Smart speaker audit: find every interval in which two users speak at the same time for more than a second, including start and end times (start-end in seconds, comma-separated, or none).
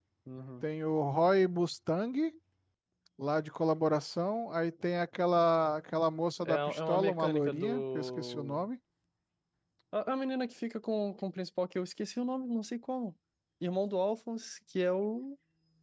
6.4-8.6